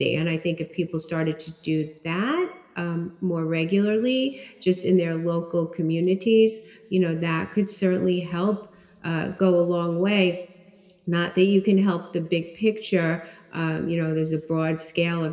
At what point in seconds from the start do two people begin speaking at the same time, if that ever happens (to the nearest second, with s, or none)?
none